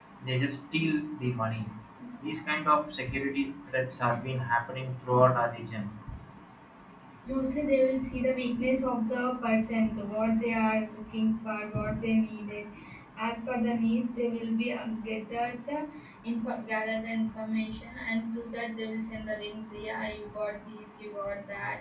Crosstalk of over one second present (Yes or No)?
No